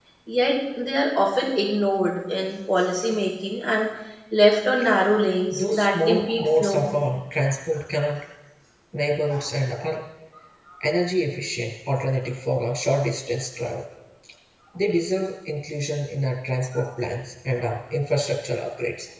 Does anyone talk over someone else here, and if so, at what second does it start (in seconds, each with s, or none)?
5.5 s